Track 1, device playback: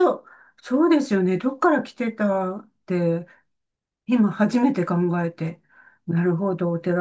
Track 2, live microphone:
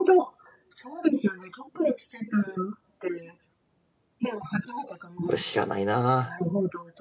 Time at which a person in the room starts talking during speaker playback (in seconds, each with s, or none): 5.2 s